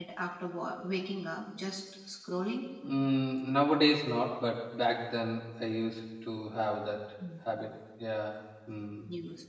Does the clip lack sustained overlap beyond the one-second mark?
Yes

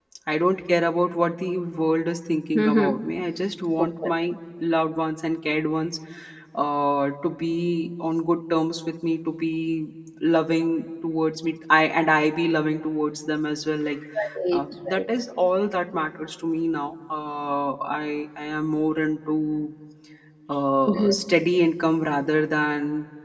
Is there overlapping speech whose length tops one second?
No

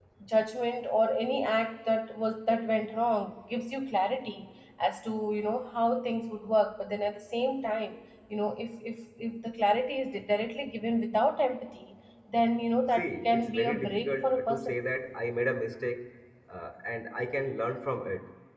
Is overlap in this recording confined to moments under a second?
No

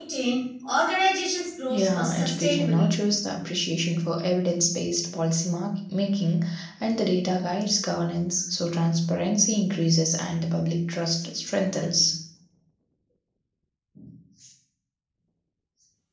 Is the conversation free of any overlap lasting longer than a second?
No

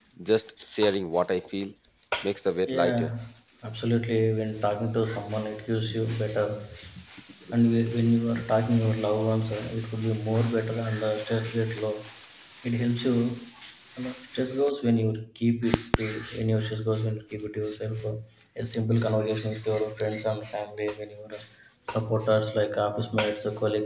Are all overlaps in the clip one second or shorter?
Yes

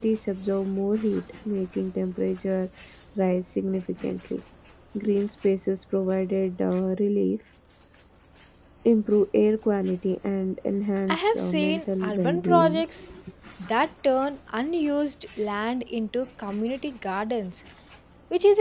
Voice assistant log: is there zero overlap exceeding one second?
No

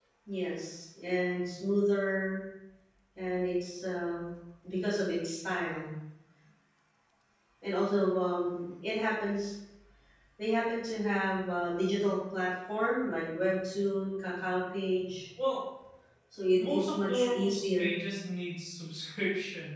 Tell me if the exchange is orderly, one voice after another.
No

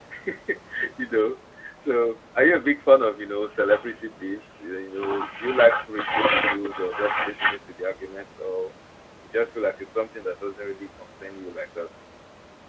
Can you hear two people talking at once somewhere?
No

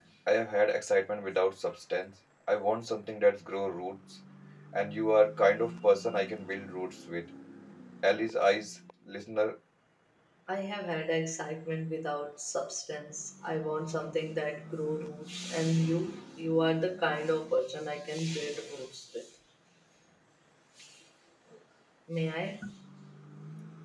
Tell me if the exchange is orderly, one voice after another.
Yes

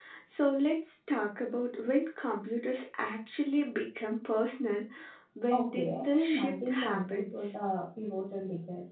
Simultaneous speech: Yes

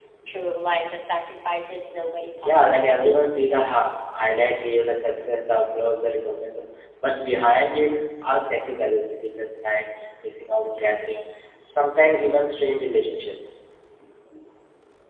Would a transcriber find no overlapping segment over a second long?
No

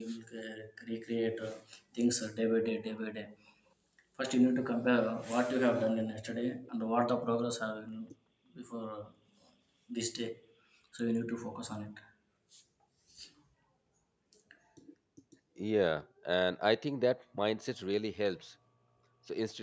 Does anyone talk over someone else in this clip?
No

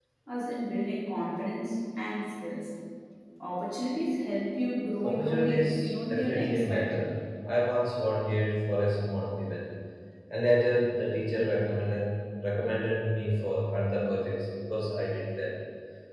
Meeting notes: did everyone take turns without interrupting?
No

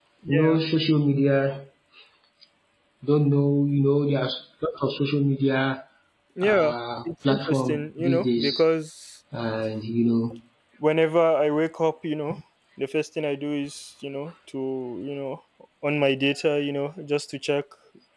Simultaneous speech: Yes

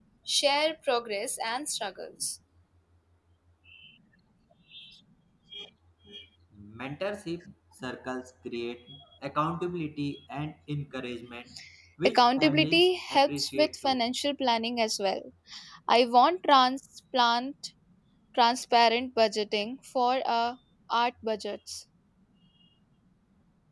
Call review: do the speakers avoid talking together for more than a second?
No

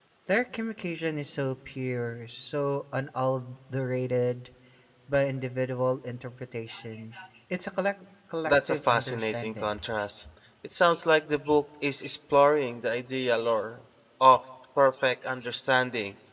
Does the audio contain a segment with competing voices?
Yes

